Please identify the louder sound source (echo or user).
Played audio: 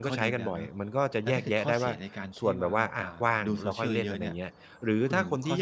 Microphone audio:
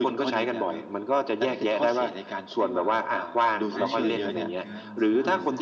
echo